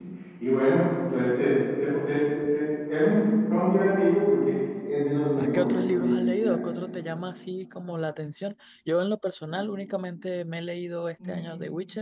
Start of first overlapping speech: 5 s

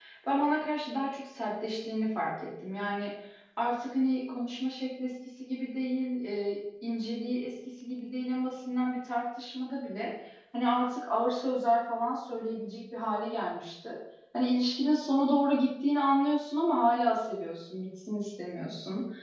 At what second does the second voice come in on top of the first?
none

